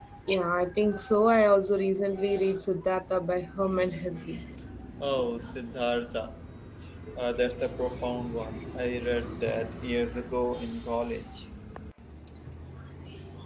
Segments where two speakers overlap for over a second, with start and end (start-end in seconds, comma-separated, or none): none